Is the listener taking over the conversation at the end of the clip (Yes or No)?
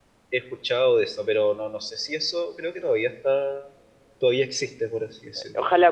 Yes